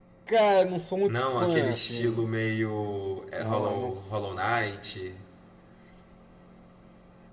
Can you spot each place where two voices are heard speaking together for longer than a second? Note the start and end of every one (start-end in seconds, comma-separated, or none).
1.1-2.3